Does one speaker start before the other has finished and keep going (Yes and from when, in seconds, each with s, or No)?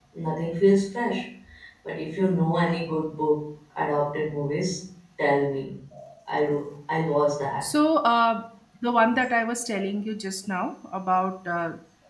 No